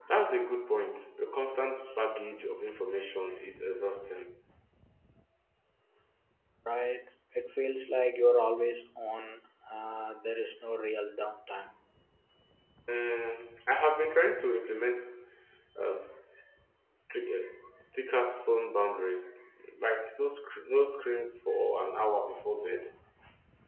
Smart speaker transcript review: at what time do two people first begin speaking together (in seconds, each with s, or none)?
none